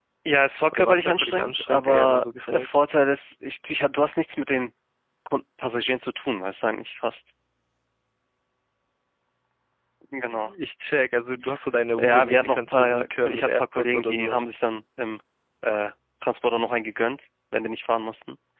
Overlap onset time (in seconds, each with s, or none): 0.7 s